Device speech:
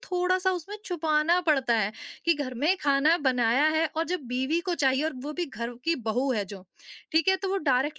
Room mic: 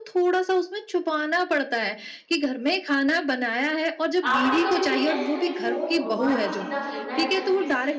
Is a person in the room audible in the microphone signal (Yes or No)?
Yes